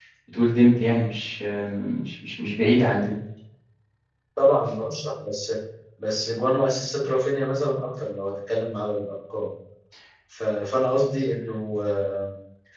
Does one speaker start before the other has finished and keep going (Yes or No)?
No